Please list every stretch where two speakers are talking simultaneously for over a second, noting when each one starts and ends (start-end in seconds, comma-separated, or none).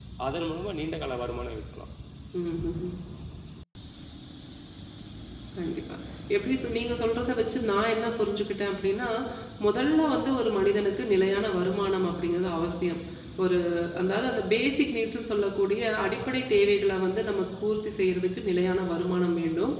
none